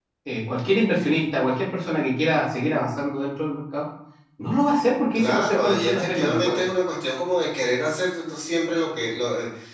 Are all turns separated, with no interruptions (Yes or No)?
No